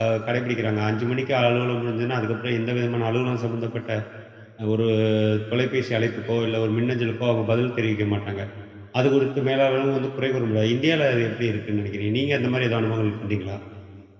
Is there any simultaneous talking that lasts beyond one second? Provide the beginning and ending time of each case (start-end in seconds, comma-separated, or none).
none